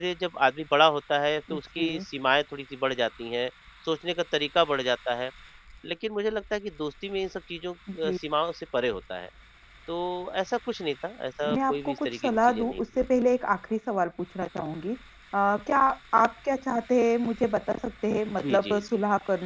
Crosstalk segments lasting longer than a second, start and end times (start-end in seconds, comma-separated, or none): 11.4-12.8